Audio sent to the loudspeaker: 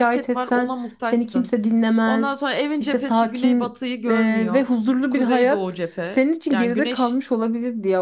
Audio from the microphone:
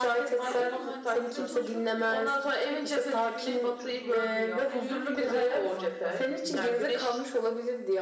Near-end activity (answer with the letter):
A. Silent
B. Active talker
B